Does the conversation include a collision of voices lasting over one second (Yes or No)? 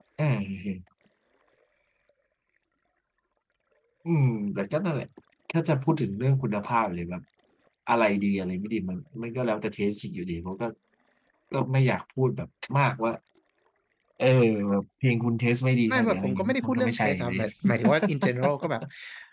Yes